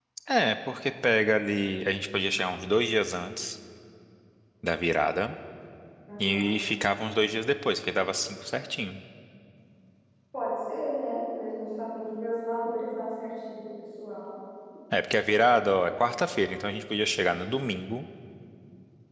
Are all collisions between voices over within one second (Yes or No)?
Yes